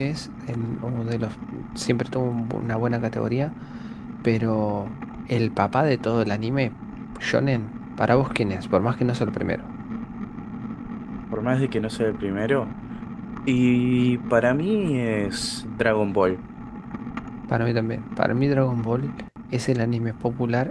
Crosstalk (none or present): none